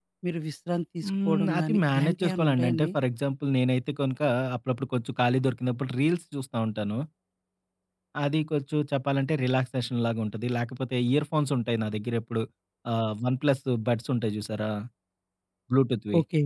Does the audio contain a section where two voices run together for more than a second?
Yes, from 1.1 s

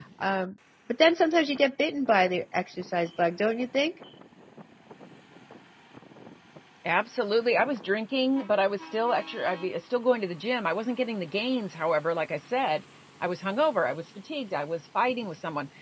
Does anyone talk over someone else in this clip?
No

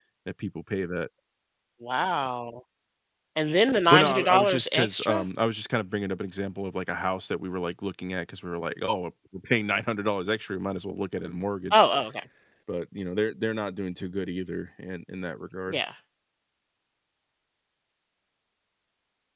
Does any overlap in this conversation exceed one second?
Yes, from 3.9 s

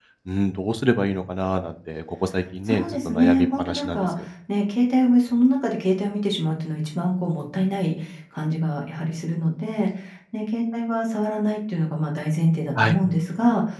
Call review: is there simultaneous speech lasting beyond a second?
Yes, from 2.7 s

